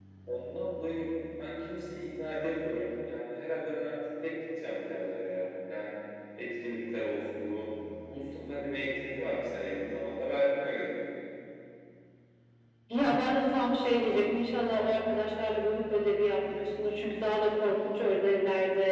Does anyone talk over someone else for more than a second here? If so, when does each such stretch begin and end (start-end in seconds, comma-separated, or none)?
none